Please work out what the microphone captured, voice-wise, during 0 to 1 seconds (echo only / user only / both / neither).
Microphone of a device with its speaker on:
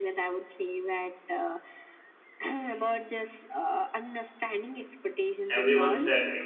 echo only